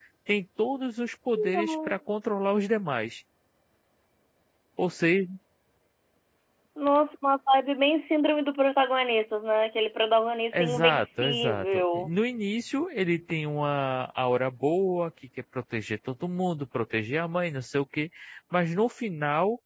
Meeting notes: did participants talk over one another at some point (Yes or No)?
Yes